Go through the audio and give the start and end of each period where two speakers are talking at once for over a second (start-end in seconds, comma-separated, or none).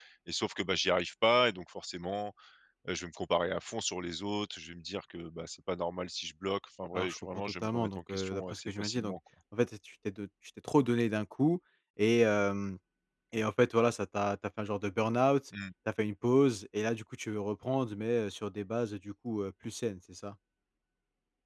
7.0-9.2